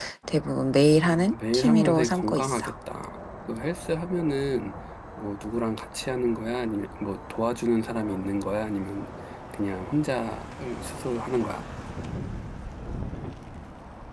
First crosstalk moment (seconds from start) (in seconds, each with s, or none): 1.0 s